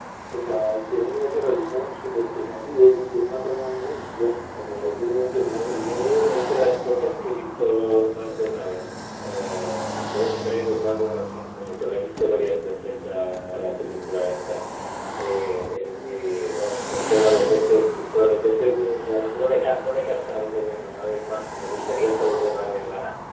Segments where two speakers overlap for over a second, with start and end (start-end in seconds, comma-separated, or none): none